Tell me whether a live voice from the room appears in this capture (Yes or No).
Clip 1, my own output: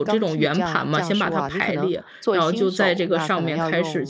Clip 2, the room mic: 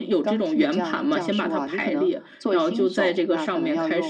No